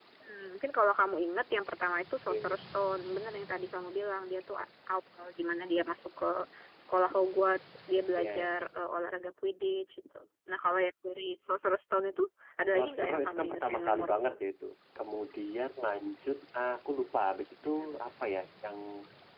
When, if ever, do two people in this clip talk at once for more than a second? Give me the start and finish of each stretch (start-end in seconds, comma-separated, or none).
12.7-14.4